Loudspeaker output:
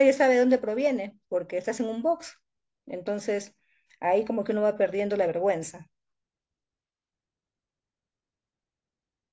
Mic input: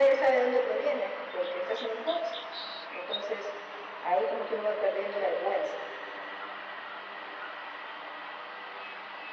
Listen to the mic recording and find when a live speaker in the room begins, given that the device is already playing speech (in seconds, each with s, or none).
none